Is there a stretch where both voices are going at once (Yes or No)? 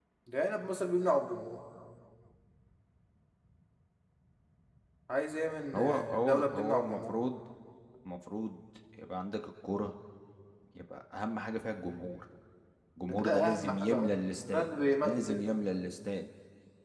Yes